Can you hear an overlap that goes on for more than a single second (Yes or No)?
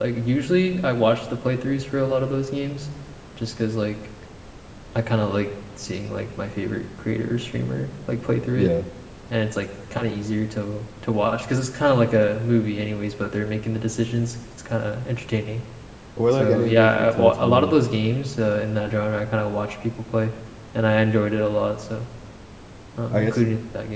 Yes